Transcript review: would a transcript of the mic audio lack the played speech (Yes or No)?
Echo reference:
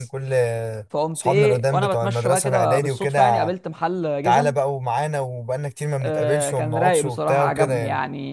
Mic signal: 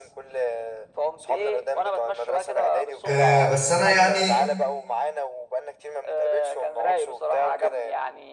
No